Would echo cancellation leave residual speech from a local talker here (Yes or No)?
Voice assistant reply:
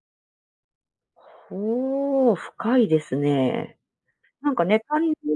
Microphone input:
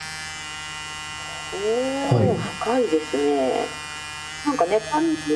Yes